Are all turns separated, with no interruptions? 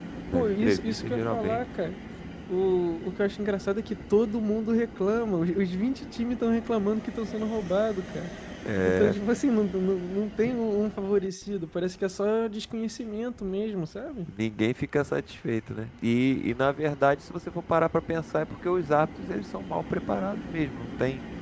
No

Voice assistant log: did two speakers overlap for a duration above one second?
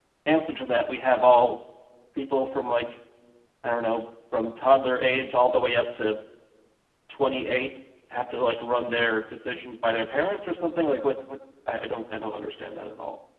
No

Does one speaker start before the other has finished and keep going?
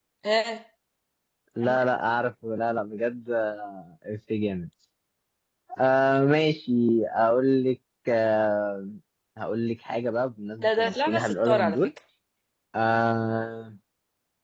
Yes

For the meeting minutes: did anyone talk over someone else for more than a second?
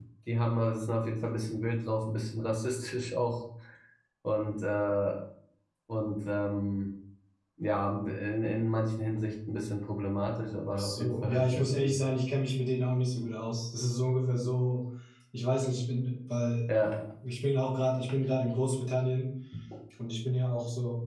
Yes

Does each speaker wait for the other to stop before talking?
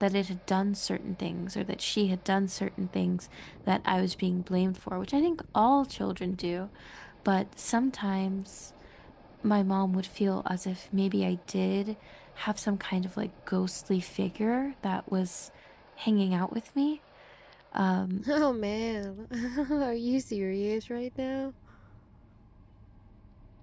Yes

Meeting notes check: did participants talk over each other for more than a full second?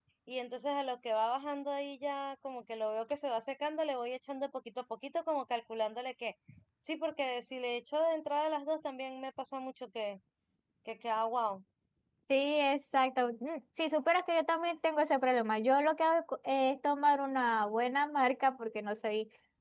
No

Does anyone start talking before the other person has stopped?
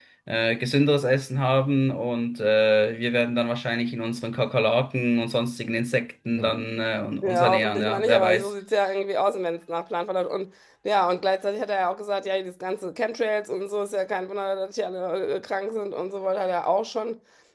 Yes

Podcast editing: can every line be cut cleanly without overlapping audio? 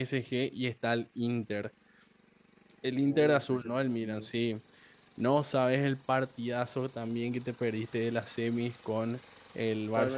No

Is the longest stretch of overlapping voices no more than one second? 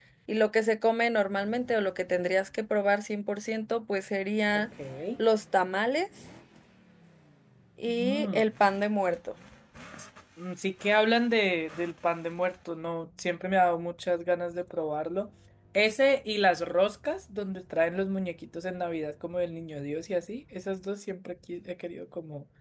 Yes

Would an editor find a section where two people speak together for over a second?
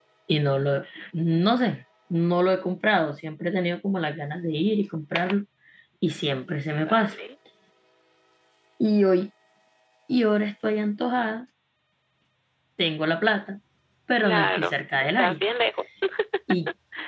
Yes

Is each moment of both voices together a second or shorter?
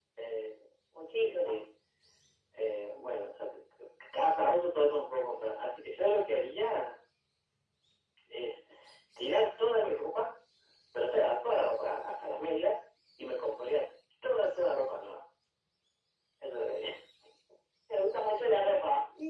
Yes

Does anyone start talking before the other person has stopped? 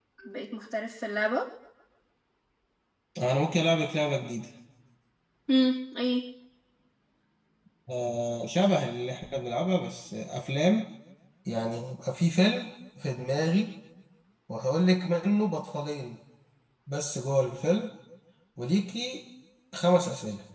No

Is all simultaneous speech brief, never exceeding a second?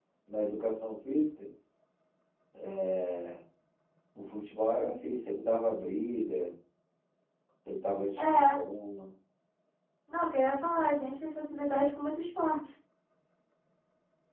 Yes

